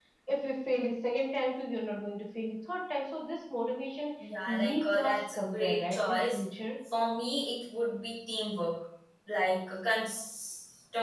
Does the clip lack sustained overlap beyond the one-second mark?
No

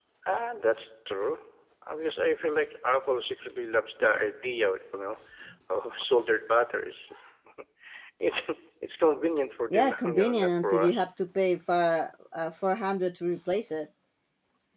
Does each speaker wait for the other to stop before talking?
No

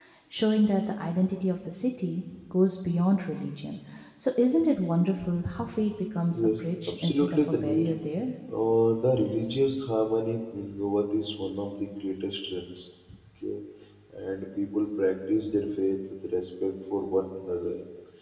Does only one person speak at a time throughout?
No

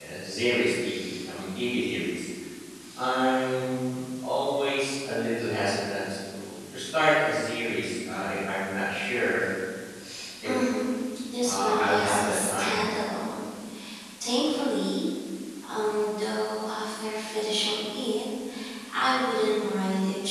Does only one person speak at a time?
No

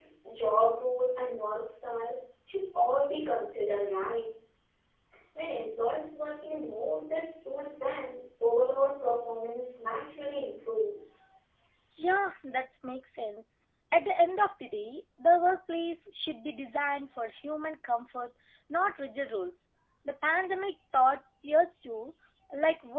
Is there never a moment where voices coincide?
Yes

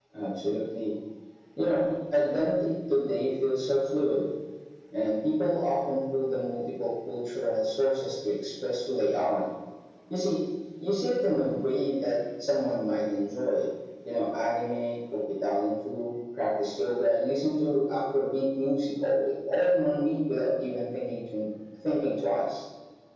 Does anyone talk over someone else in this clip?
No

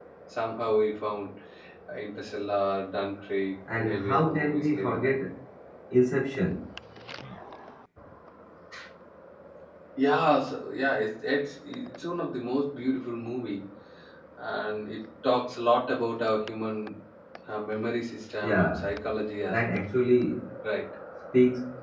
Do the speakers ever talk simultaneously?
Yes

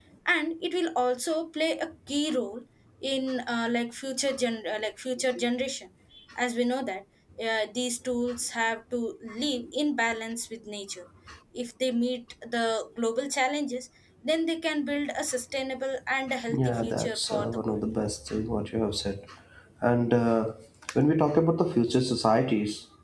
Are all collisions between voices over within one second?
No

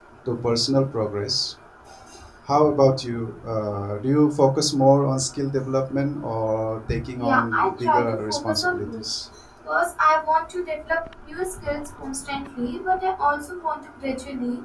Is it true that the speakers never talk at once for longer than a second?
No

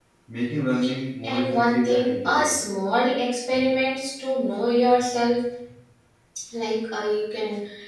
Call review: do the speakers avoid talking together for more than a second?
No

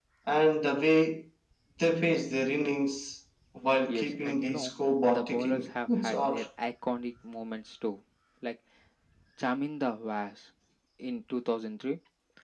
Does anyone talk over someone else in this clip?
Yes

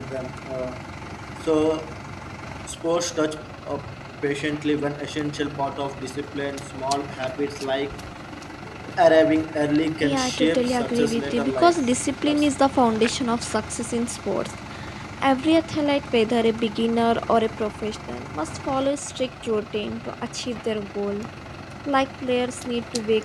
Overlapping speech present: Yes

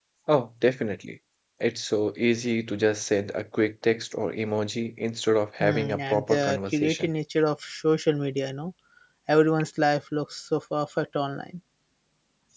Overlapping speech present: Yes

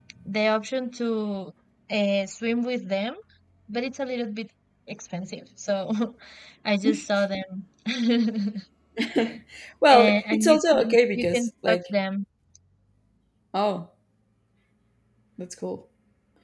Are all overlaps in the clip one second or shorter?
No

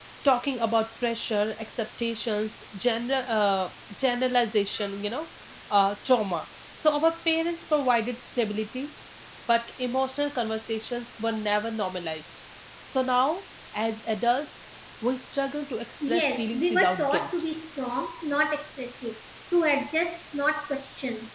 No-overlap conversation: No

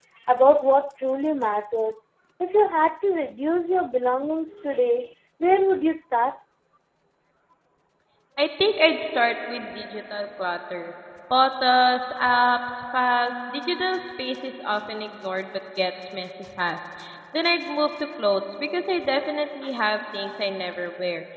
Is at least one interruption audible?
No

